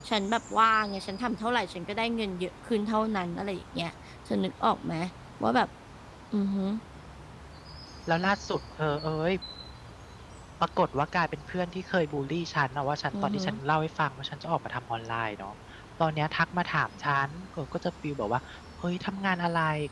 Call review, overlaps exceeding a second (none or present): none